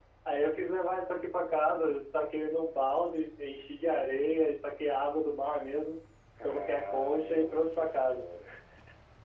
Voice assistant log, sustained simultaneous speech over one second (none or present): present